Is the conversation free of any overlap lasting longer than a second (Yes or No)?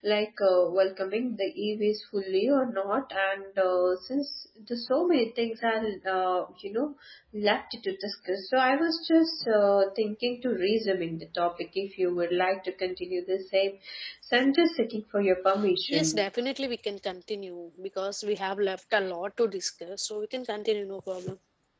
Yes